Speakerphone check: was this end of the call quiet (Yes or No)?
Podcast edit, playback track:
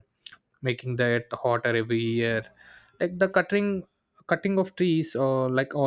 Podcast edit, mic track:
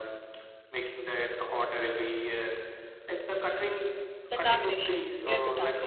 No